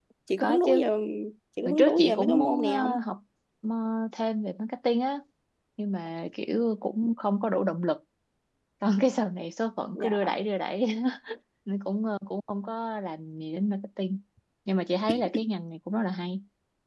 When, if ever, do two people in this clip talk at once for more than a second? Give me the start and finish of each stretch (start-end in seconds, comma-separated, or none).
1.6-3.0